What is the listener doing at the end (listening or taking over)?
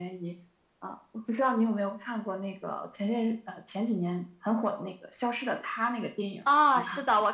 taking over